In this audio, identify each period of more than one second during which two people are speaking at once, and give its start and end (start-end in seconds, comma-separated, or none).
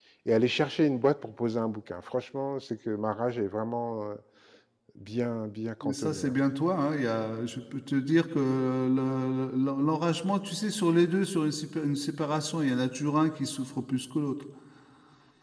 none